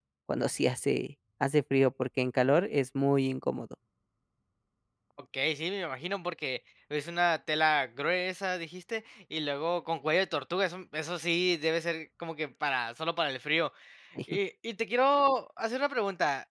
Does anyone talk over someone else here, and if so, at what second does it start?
none

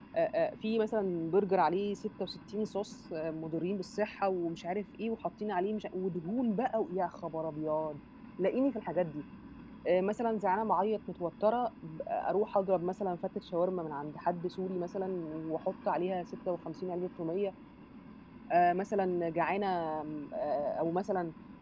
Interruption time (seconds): none

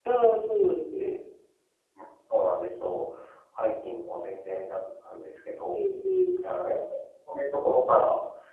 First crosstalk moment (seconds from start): none

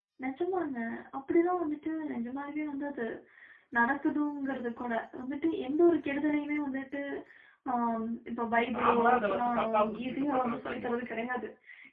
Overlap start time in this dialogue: 8.7 s

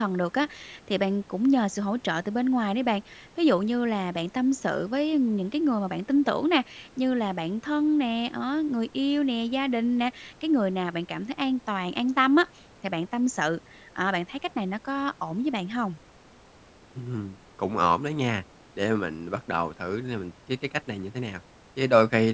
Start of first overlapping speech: none

